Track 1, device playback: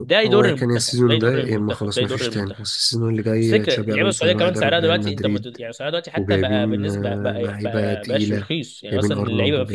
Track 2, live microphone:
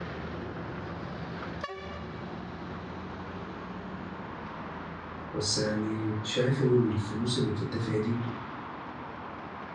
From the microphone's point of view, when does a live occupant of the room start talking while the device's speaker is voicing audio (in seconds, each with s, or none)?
5.3 s